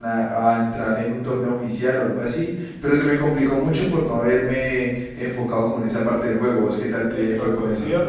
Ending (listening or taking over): taking over